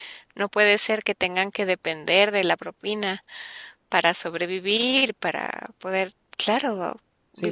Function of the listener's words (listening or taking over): taking over